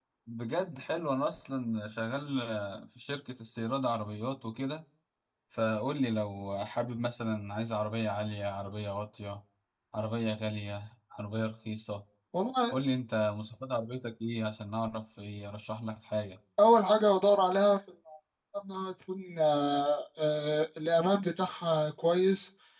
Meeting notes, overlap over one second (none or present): none